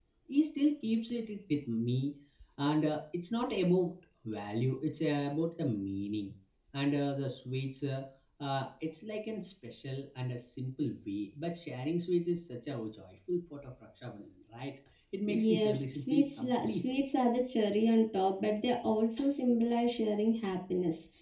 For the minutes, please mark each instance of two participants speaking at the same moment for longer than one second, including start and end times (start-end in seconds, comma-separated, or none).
15.3-16.7